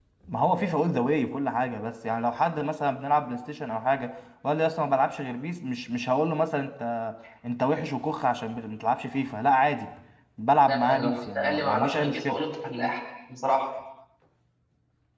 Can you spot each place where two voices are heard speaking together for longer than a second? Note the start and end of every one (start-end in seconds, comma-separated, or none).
10.7-12.4